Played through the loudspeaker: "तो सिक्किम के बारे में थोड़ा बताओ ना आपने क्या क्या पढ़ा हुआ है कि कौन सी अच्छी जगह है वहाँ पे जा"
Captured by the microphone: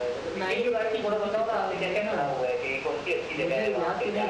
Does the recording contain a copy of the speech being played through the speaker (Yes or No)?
Yes